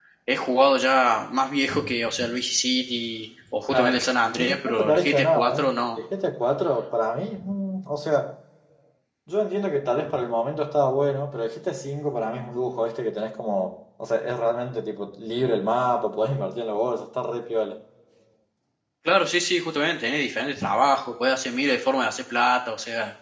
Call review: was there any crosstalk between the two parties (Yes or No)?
Yes